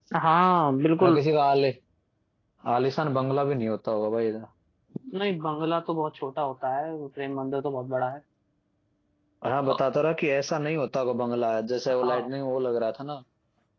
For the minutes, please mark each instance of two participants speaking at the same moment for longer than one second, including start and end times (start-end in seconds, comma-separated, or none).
none